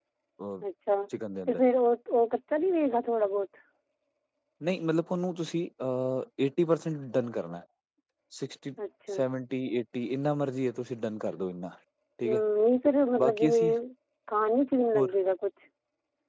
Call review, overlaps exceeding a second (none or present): none